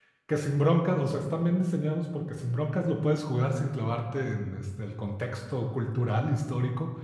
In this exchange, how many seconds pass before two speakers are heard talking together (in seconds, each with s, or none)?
none